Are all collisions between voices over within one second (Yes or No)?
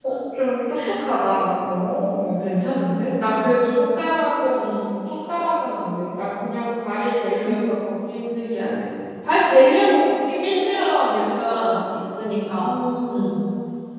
No